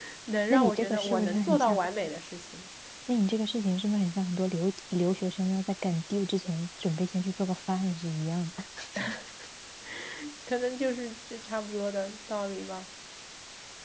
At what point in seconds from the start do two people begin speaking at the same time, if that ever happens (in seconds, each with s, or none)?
0.5 s